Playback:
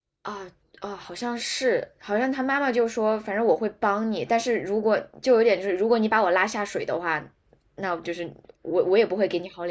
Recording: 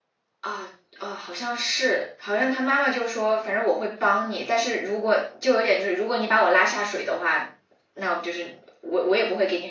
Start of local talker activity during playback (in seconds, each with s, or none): none